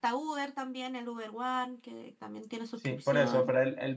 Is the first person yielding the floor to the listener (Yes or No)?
Yes